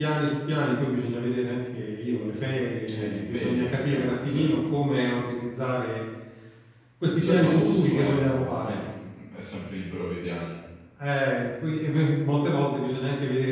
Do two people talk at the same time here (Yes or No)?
Yes